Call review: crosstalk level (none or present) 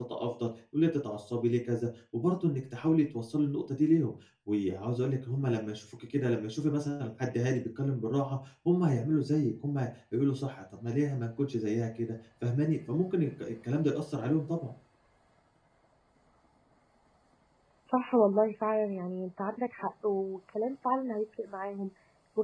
none